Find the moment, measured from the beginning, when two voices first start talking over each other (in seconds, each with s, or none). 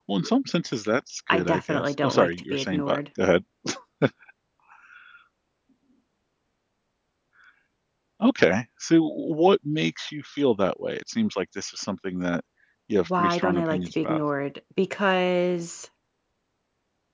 1.3 s